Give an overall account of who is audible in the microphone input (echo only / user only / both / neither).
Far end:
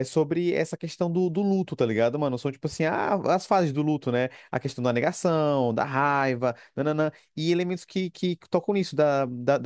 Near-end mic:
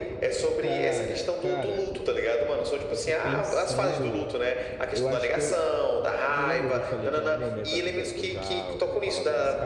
both